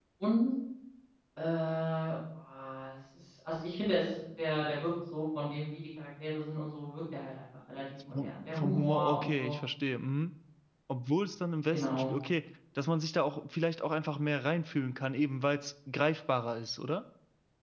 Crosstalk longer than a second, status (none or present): present